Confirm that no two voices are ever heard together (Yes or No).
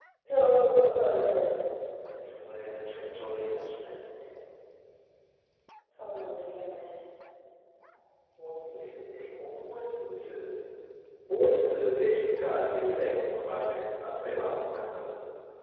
Yes